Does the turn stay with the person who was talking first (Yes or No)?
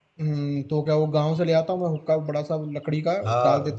No